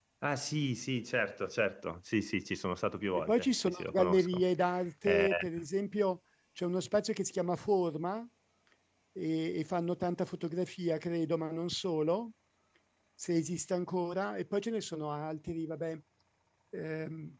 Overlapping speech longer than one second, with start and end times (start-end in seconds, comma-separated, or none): 3.1-4.4